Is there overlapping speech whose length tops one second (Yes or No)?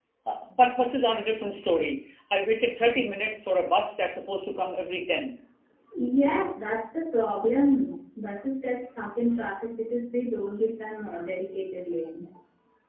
No